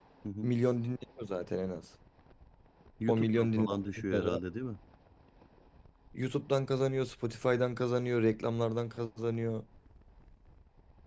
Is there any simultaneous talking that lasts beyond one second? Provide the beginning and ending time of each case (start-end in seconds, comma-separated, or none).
3.1-4.4